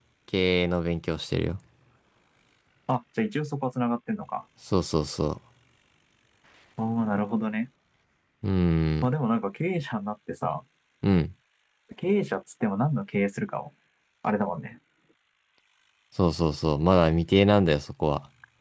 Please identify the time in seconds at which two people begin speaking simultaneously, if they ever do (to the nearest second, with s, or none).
none